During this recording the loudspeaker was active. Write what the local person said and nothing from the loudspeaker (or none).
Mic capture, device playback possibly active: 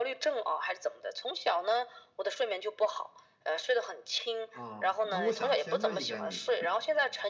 哦，那我想先问一下你，